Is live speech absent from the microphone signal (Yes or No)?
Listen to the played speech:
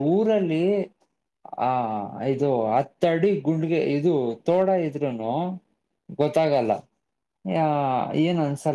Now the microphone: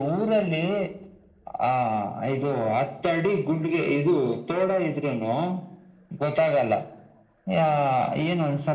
Yes